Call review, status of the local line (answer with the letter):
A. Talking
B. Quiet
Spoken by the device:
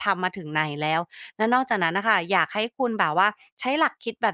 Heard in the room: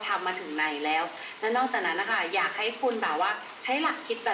B